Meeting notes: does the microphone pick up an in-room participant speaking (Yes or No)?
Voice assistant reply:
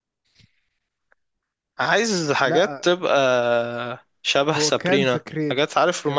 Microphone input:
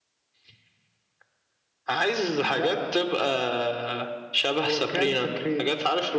No